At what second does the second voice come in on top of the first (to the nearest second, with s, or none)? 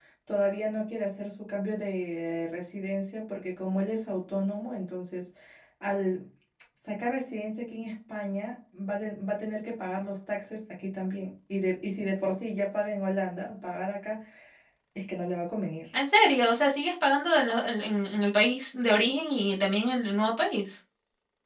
none